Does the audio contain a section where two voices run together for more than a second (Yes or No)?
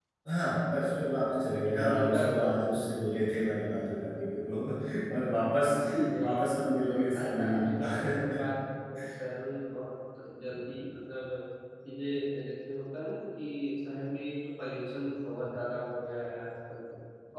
Yes